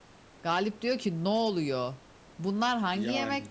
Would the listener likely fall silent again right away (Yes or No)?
Yes